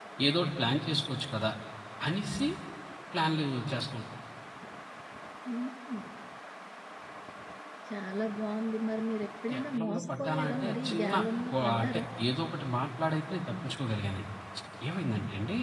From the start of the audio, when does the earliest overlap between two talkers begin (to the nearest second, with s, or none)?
10 s